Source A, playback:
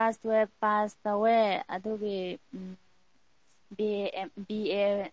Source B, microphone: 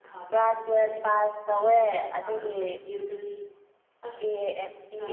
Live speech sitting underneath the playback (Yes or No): Yes